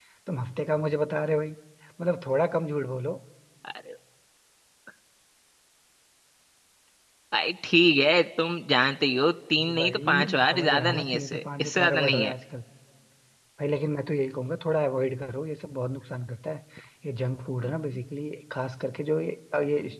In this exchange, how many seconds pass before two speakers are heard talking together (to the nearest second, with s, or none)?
10 s